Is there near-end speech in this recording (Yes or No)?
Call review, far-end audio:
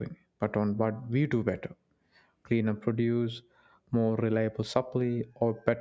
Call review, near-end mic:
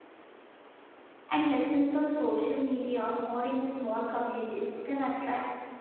Yes